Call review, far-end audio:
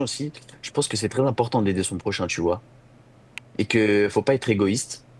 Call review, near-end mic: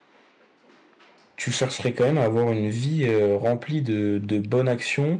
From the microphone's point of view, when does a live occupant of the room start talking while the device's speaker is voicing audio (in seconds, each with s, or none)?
1.4 s